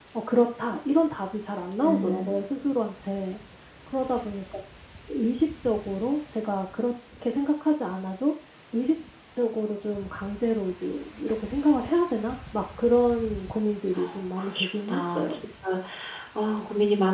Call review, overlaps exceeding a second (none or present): present